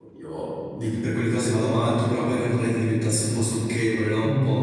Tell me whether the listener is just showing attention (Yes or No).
No